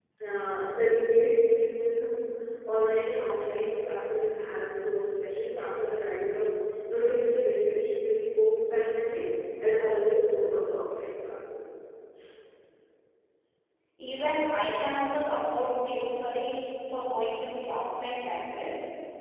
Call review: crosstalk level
none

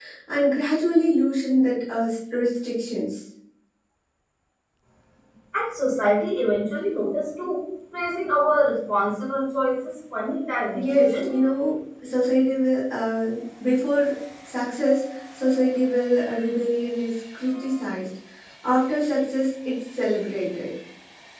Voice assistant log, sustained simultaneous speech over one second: none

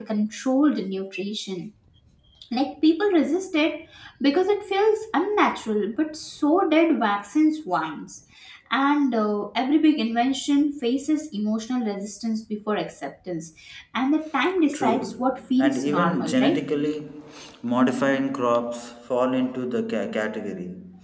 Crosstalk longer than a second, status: present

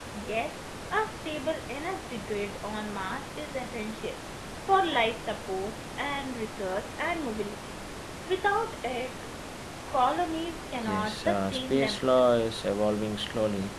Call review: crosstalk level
present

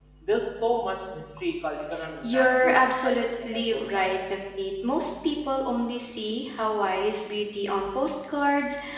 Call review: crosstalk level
present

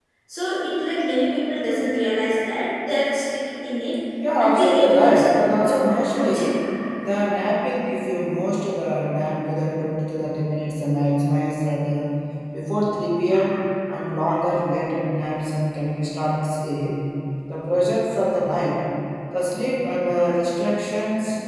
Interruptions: present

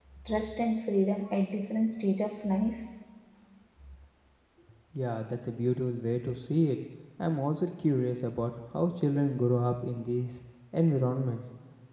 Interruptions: none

